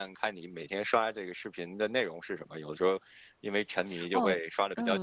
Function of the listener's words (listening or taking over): taking over